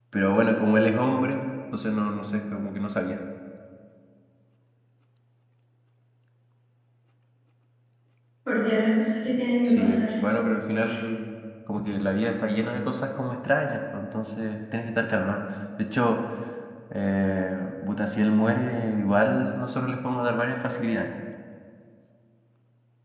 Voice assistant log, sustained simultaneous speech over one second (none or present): none